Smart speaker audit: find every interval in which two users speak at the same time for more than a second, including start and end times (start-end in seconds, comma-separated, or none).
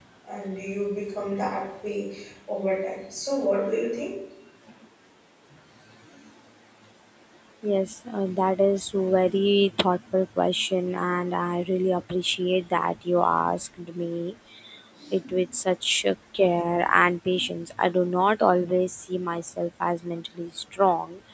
none